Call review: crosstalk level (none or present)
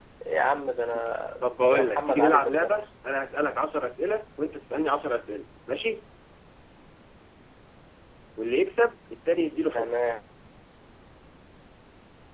present